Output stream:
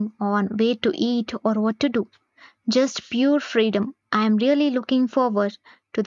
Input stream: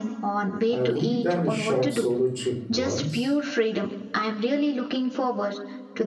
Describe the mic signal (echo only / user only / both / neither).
both